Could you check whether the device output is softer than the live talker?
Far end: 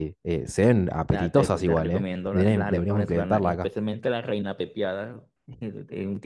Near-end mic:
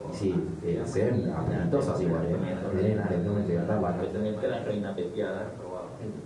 No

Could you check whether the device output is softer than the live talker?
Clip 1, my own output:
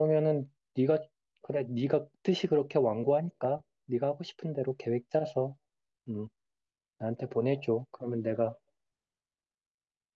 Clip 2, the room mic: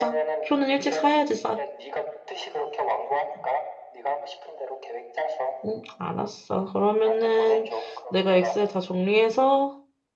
Yes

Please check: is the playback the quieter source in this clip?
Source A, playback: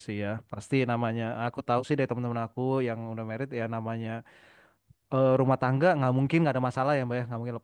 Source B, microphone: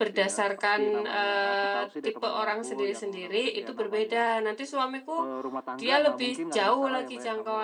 Yes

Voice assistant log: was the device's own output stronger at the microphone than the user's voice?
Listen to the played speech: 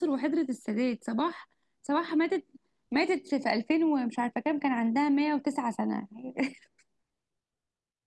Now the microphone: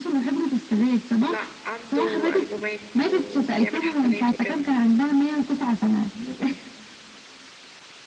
Yes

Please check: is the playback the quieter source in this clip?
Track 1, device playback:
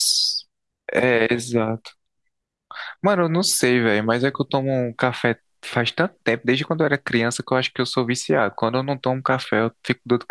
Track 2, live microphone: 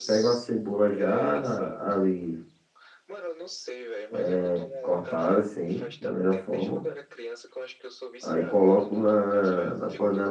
Yes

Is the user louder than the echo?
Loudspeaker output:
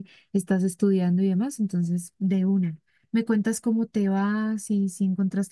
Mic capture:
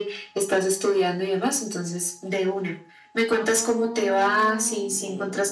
No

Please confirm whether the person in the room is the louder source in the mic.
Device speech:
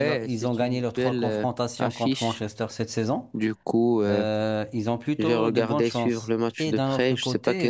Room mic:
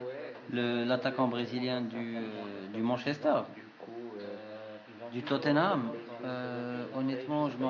Yes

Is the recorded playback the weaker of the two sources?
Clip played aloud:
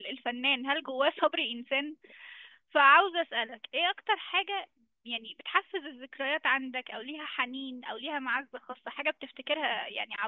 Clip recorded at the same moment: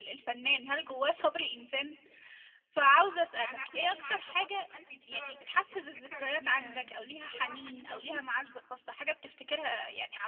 No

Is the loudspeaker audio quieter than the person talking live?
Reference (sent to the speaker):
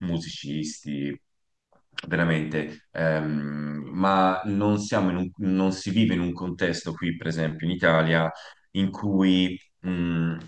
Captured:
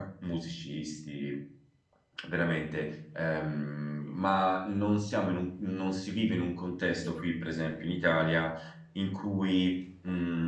No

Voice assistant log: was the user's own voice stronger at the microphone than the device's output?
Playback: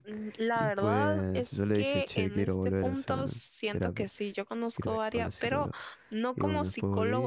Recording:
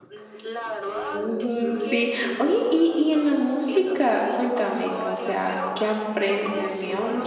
Yes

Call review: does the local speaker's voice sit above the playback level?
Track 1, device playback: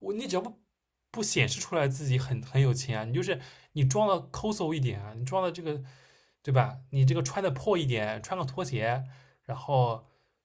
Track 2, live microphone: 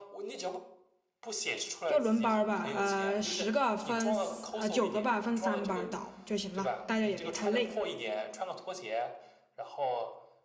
Yes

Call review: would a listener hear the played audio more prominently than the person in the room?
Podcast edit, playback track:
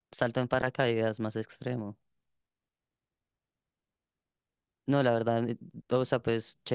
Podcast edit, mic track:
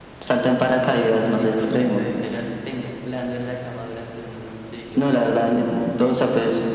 Yes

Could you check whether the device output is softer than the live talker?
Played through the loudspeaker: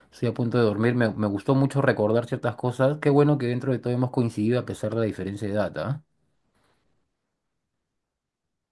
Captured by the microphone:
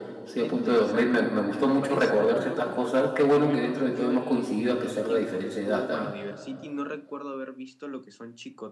No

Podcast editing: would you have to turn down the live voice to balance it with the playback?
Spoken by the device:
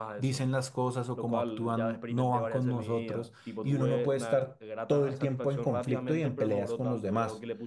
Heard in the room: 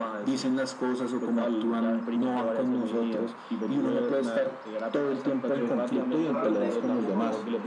No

